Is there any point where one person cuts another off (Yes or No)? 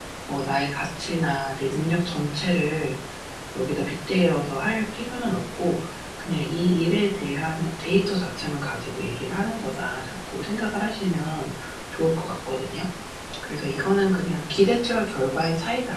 No